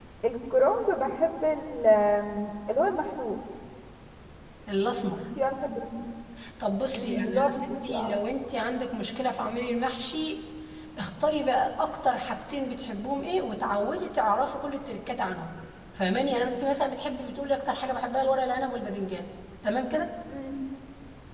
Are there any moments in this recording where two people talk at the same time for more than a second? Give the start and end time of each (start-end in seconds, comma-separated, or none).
6.9-8.2